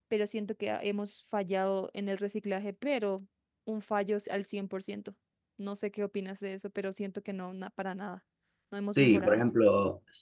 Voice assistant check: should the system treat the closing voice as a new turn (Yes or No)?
Yes